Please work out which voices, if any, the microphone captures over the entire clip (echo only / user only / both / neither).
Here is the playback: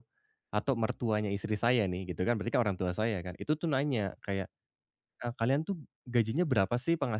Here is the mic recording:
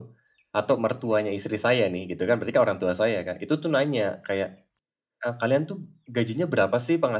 echo only